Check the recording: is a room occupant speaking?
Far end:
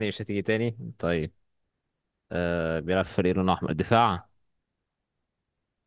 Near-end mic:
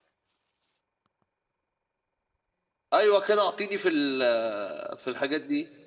Yes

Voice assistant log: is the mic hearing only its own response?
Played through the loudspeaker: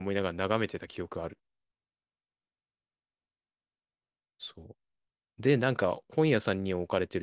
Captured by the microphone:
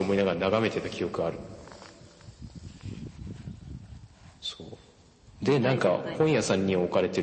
No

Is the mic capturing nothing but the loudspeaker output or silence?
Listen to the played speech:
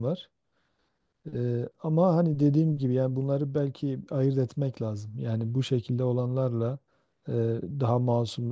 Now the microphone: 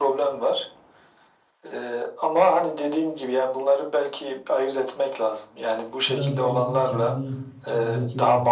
No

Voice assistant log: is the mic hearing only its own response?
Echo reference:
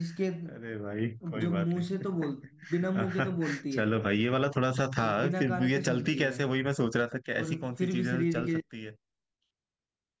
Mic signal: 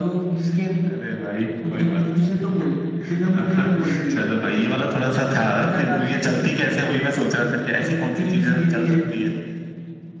Yes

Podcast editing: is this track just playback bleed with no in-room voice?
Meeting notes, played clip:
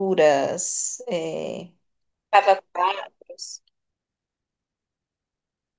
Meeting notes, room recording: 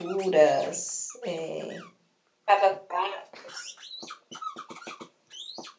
Yes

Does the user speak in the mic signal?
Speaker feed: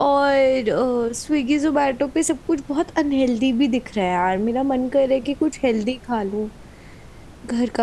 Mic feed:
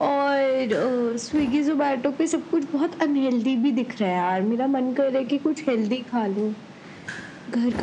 No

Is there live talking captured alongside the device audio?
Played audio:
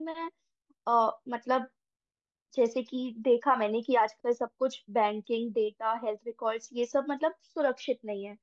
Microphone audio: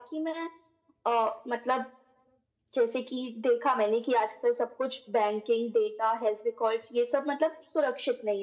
No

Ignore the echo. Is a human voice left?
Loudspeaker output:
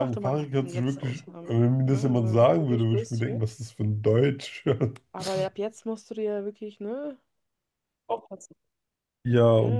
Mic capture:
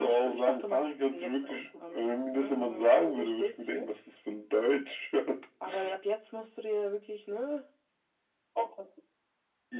No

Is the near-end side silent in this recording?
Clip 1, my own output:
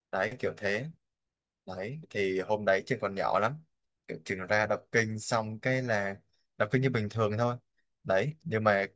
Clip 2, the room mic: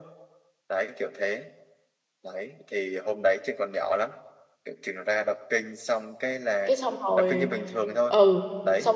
No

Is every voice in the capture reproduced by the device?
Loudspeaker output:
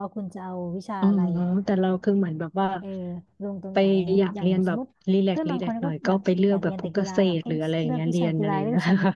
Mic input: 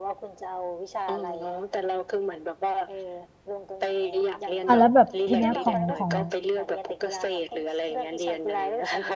No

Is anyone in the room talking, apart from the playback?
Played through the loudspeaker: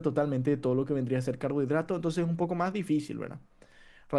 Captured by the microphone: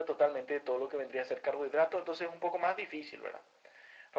No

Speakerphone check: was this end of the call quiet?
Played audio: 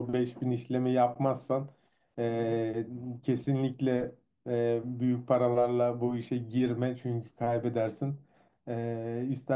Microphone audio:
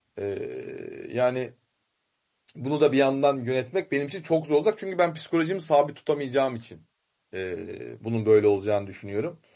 No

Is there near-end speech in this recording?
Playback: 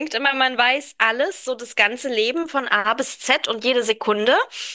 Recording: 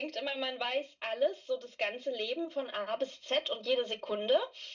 No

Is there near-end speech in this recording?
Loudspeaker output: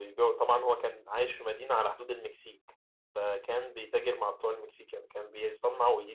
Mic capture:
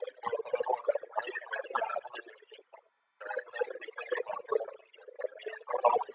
No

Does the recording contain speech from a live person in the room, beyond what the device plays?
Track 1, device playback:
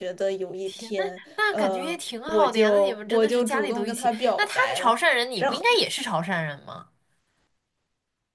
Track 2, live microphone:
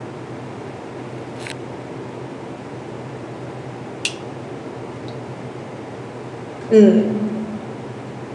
Yes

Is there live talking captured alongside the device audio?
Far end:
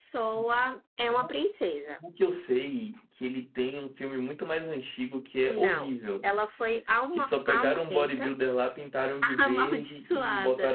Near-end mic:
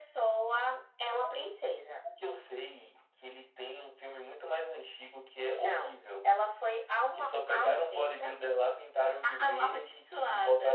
No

